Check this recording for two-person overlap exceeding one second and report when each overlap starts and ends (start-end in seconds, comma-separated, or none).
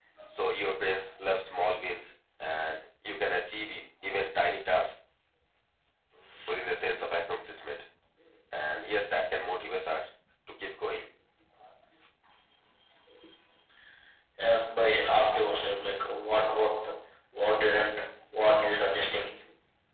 none